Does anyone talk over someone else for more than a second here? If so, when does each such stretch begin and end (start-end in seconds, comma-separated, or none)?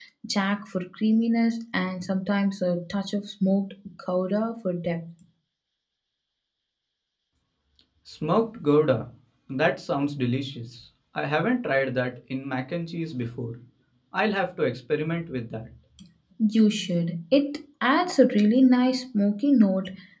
none